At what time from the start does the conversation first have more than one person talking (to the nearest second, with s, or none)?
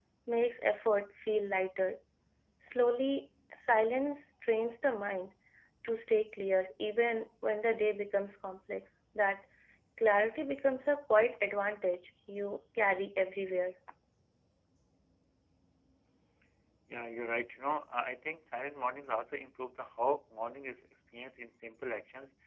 none